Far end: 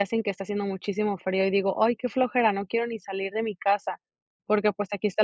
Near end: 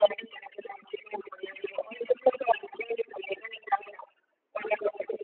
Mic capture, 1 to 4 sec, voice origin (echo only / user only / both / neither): echo only